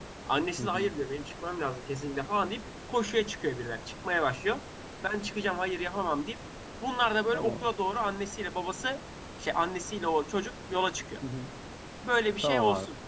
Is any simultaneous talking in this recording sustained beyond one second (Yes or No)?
No